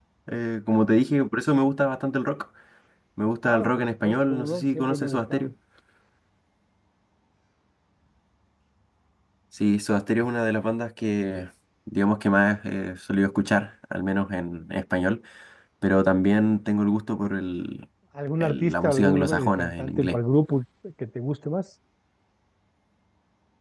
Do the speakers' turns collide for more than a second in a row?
Yes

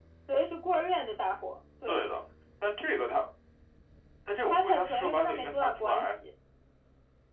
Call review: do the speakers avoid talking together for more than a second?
No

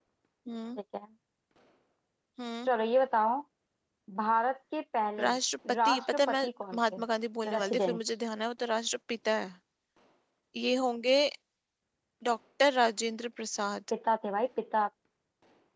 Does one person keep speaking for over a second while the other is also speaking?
Yes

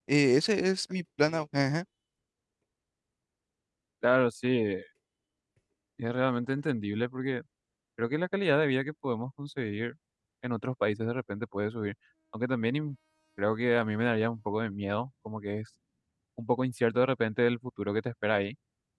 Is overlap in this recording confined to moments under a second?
Yes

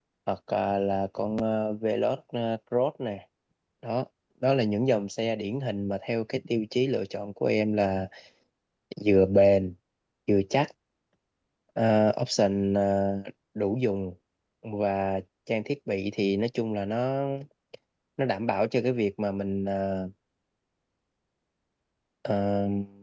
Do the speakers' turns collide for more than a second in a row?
No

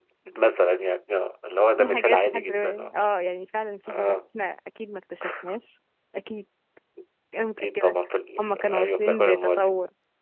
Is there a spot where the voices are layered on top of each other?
Yes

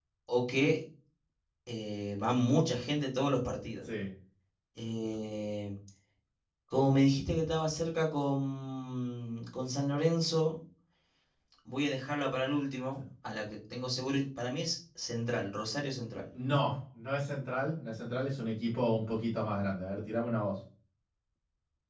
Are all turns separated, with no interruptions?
Yes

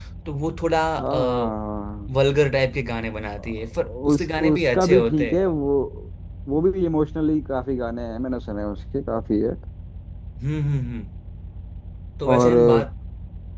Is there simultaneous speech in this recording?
Yes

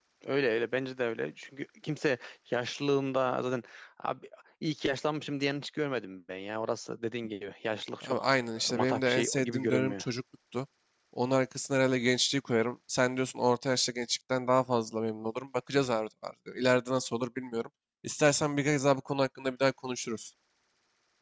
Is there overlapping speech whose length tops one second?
Yes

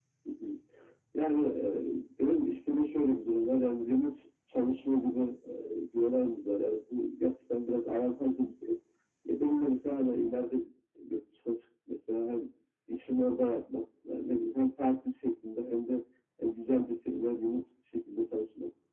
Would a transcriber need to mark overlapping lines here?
No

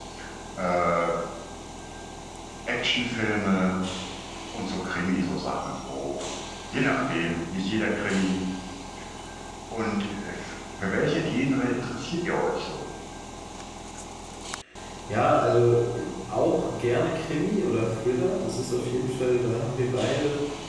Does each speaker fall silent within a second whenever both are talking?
Yes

